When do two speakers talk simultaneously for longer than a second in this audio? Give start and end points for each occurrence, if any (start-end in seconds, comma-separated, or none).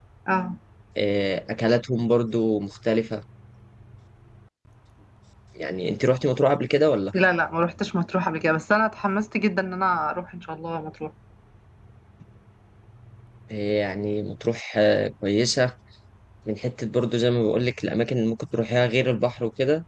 none